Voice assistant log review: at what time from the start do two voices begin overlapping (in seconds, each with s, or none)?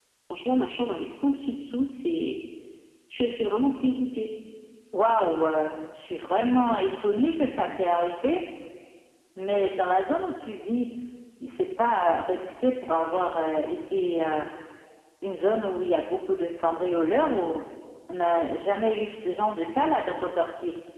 none